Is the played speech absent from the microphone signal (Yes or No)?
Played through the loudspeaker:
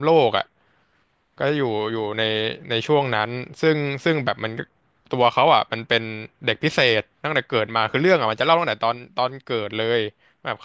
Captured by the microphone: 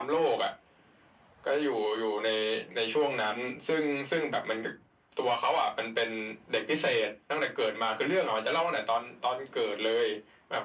No